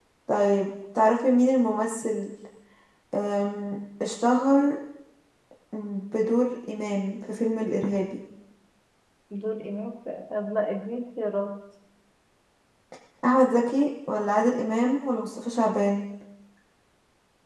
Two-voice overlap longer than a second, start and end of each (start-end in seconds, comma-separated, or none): none